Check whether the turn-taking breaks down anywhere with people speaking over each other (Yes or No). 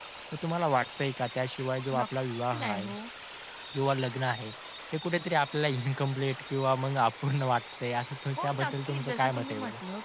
Yes